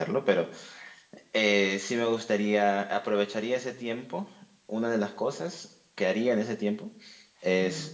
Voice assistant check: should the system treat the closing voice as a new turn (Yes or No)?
No